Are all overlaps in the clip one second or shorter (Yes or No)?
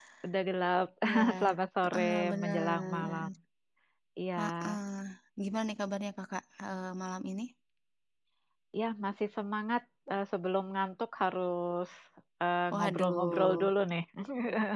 No